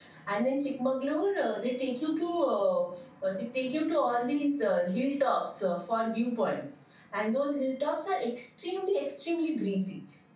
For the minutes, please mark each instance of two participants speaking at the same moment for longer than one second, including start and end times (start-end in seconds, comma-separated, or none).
none